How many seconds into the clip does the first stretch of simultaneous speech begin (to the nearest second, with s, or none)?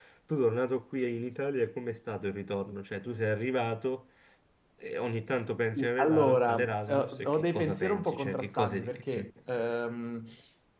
6 s